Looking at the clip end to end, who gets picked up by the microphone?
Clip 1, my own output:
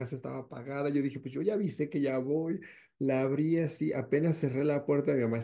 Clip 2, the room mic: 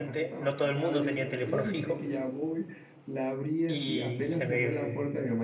both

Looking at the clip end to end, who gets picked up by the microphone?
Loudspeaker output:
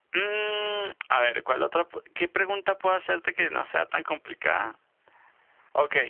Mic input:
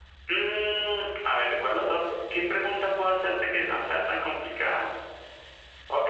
echo only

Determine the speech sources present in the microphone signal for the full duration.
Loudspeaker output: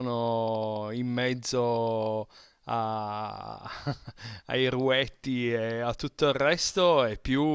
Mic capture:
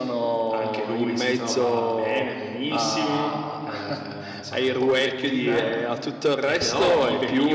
both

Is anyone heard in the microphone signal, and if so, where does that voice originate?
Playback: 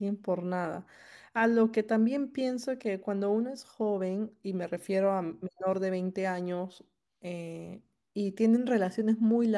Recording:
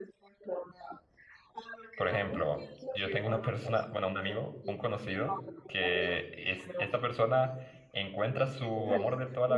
both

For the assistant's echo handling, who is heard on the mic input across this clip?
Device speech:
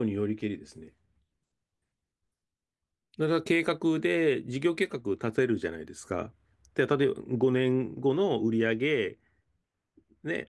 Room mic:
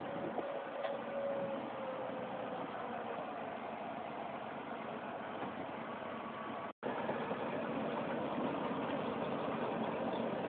neither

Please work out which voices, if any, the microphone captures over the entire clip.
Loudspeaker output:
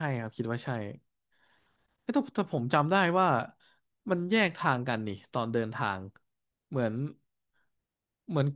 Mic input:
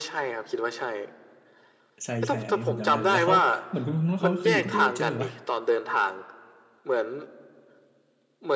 both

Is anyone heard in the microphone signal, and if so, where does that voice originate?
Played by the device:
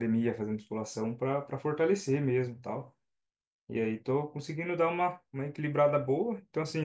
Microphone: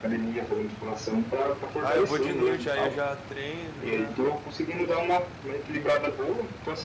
both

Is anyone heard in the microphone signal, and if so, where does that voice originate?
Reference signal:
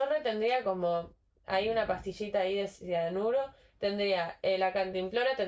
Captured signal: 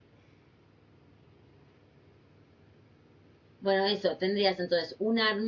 user only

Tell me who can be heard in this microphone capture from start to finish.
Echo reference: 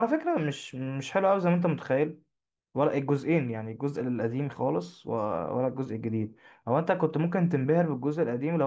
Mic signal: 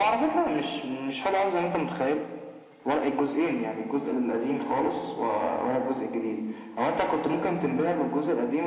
echo only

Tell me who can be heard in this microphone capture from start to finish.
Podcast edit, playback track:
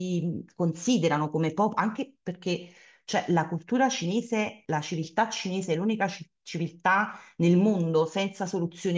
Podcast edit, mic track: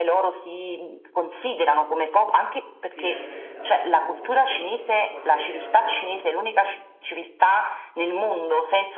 both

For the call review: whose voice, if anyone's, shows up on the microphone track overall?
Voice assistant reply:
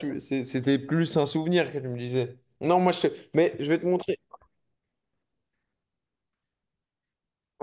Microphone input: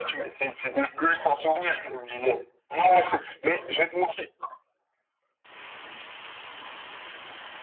echo only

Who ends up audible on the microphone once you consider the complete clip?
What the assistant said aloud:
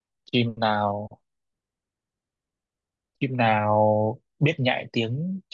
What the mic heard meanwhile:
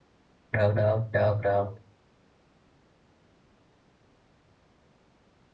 user only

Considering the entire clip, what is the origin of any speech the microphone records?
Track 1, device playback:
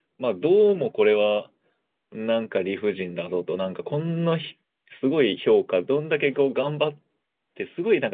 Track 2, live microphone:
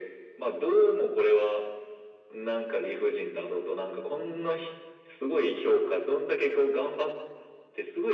echo only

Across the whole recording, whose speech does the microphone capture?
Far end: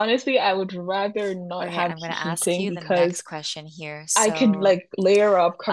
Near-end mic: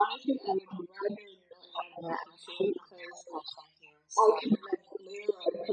echo only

